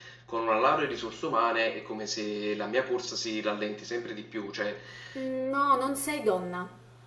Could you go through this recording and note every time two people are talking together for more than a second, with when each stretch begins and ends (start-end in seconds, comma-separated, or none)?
none